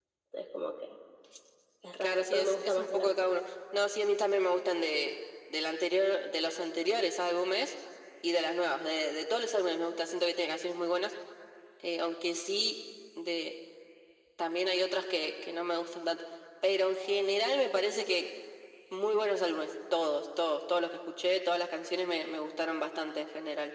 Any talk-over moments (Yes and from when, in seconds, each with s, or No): Yes, from 2.0 s